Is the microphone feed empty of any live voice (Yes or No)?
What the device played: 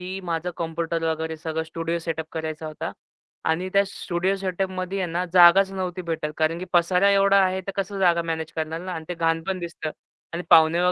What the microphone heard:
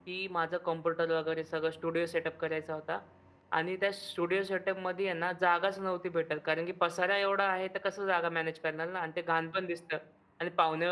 Yes